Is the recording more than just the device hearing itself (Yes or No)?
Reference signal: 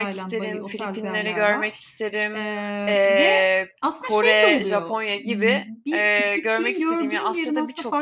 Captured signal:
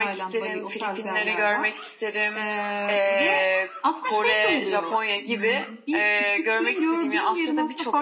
No